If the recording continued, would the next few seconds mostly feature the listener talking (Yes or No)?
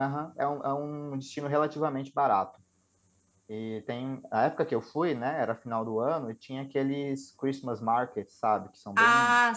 Yes